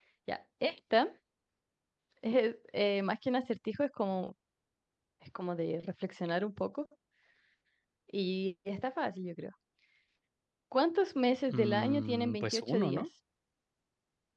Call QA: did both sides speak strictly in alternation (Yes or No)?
No